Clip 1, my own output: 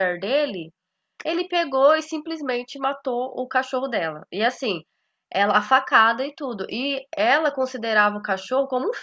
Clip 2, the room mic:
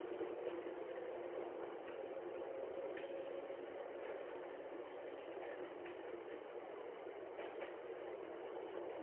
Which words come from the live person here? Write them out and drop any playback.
none

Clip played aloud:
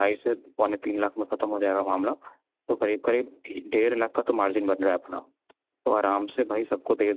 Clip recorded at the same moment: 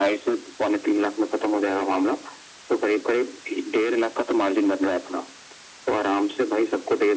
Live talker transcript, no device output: none

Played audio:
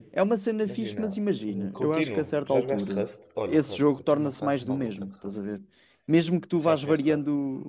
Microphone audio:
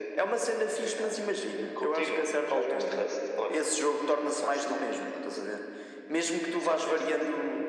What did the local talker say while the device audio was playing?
none

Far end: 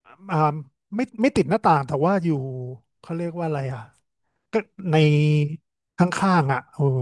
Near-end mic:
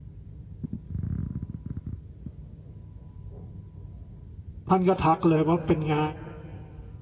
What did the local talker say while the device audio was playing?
ท่านก็ทักเลยว่าเป็นไง

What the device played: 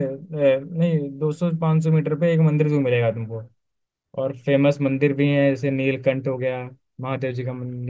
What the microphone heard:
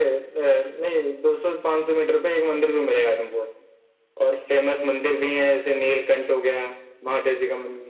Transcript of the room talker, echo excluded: none

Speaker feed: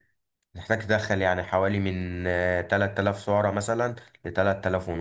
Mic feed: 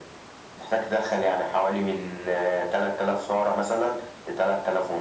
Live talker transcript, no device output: none

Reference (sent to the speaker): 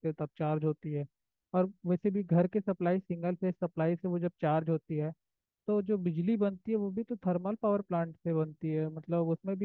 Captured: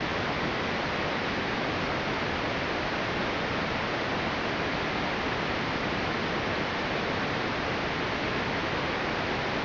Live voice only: none

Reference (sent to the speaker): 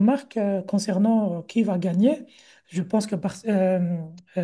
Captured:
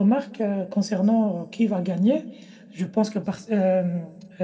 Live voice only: none

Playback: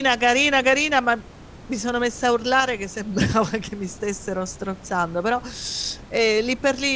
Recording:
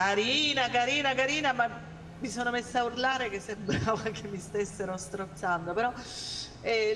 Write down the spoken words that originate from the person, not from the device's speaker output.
none

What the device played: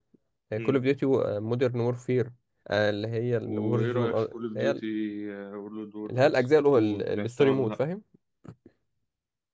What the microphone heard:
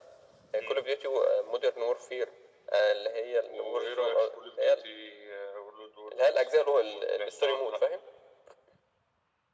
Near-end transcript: none

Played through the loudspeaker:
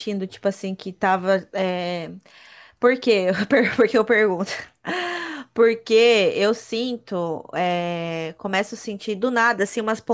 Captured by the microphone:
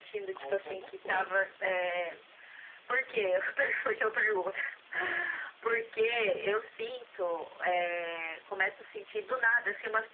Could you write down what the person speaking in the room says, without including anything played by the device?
Aí já não sei.

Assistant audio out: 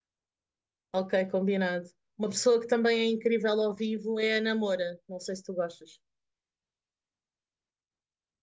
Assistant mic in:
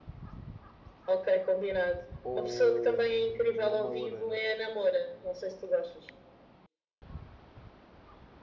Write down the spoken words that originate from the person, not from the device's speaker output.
ao, ao Mel Arena.

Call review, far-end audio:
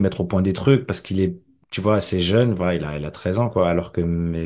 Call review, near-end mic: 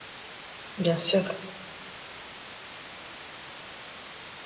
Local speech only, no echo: bien sûr.

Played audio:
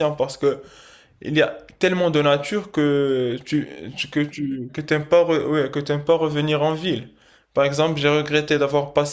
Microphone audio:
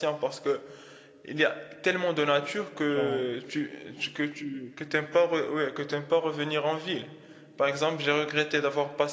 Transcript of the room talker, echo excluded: Genre,

